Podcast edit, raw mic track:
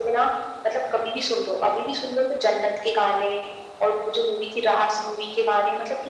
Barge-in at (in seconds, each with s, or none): none